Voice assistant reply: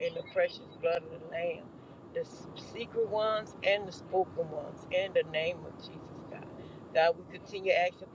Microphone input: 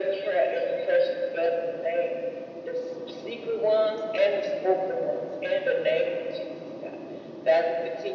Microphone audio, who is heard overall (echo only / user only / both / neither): echo only